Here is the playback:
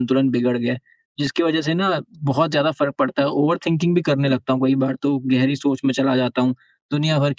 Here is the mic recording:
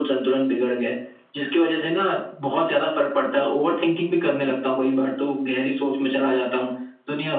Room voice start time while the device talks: none

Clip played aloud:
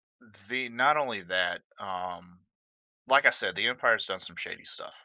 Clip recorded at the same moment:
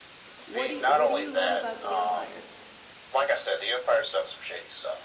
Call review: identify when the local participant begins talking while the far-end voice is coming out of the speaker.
0.5 s

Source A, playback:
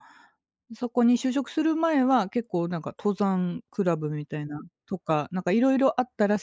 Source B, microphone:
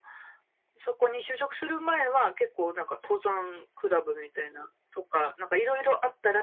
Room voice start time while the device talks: none

